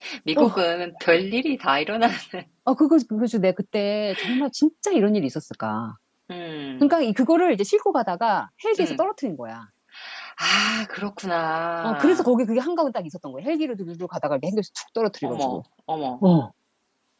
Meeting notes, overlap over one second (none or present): none